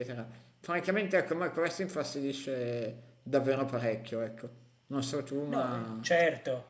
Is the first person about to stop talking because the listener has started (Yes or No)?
Yes